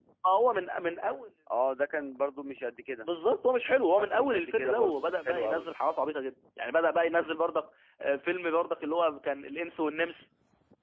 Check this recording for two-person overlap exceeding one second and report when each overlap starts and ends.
4.0-5.7

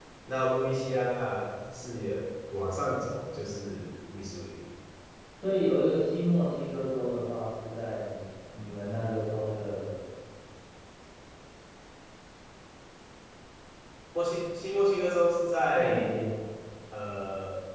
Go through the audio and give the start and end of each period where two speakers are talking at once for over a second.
none

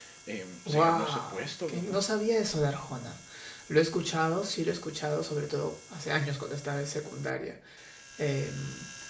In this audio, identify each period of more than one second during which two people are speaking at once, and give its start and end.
0.7-2.0

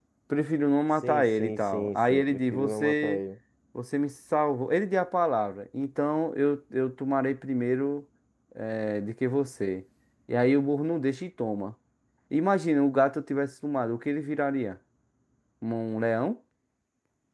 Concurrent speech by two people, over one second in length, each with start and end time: 1.0-3.2

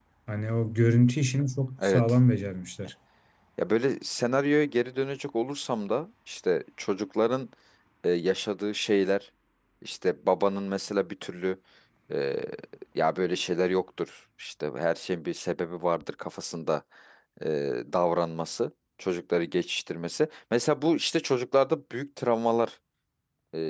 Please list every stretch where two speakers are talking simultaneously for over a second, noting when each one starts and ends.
none

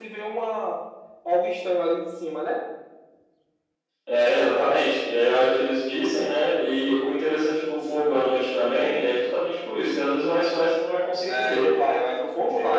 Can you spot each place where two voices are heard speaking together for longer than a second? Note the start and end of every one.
none

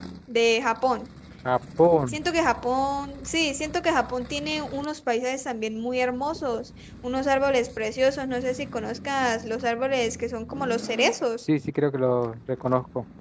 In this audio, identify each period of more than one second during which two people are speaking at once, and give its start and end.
none

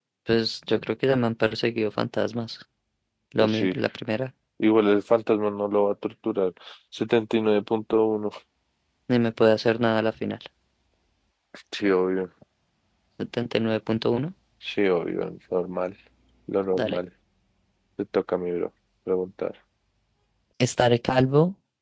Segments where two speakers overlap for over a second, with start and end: none

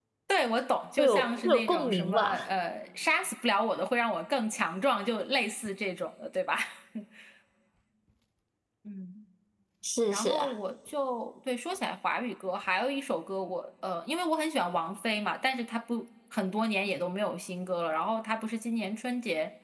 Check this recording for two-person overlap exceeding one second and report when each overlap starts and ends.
1.0-2.5

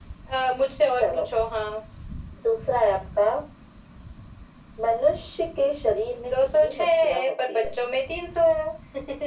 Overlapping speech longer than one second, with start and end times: 6.3-7.8

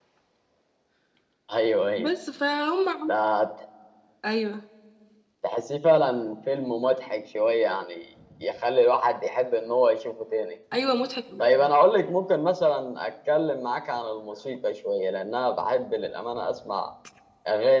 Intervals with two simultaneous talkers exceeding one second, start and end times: none

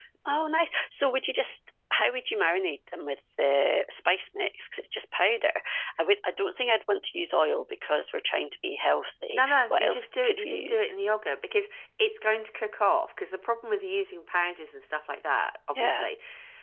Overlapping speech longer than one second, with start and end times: 9.3-10.9

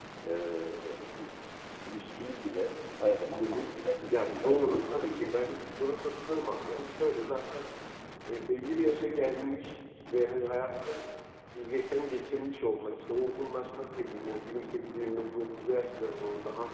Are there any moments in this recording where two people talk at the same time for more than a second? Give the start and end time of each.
4.1-5.5

